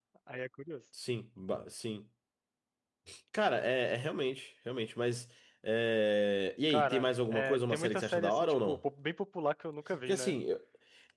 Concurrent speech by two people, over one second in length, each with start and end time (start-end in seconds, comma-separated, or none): 6.7-8.8